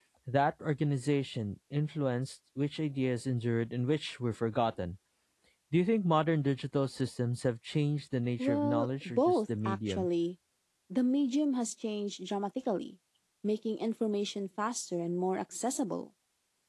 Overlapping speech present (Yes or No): Yes